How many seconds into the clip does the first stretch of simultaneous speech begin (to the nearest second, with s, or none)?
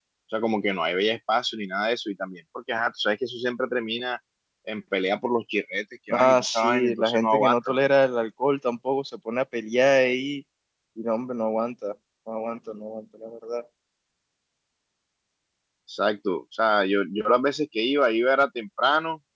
6 s